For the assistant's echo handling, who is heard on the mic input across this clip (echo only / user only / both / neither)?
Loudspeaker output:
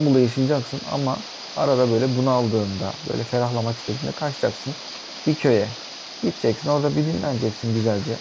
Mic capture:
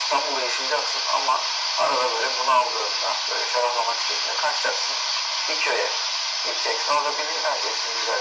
echo only